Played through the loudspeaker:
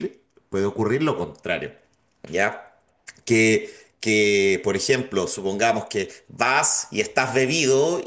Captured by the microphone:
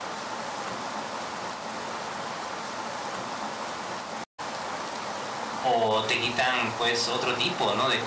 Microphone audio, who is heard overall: user only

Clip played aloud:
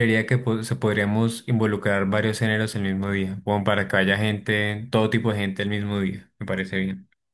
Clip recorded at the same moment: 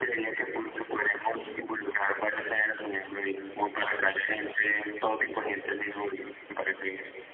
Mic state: echo only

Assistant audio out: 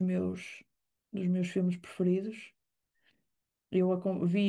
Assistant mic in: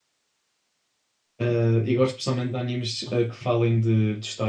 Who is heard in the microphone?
user only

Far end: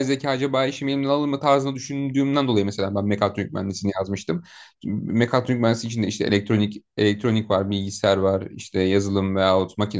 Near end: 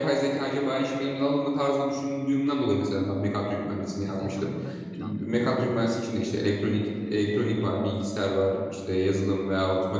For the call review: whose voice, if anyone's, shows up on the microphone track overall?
both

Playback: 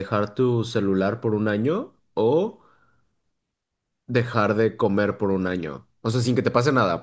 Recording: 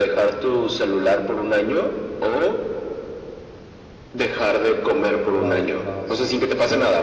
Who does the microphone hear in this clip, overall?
both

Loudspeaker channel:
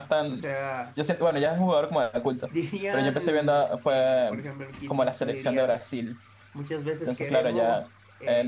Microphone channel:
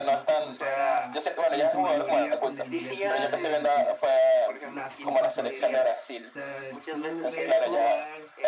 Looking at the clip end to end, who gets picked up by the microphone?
both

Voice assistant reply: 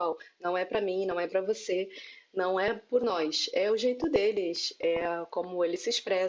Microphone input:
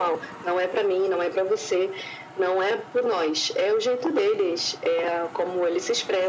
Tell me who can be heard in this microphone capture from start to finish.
echo only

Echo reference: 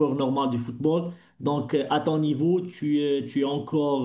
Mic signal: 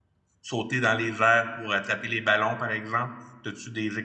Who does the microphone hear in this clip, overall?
user only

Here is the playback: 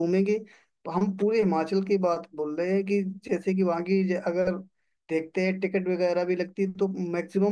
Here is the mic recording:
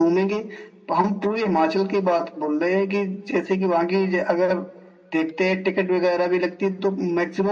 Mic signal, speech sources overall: echo only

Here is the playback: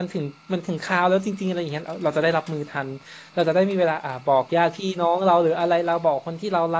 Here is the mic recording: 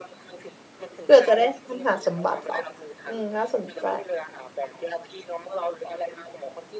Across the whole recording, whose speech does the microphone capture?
both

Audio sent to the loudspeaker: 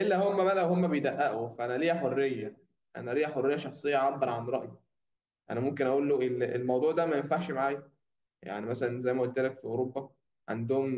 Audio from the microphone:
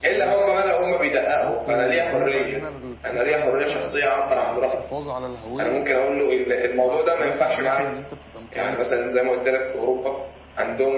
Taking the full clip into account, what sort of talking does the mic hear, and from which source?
both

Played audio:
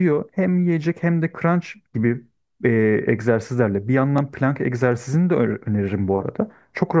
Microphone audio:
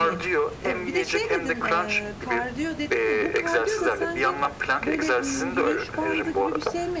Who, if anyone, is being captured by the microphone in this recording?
both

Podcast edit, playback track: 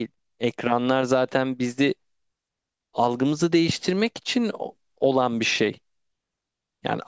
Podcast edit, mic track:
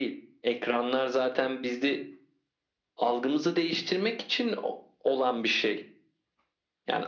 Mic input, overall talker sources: echo only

